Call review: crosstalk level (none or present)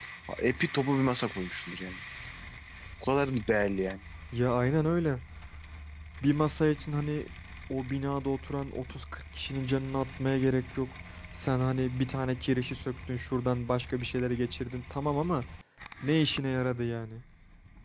none